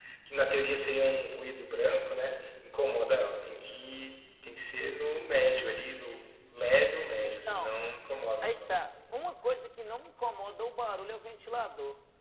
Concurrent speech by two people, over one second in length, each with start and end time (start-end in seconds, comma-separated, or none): none